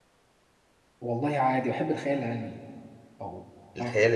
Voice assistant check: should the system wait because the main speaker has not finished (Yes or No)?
No